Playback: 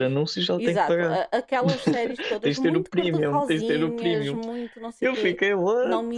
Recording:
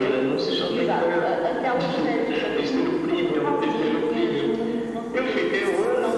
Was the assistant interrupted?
No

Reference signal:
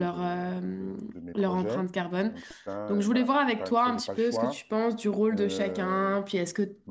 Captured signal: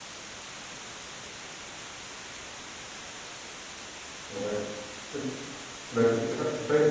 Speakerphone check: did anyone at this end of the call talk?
Yes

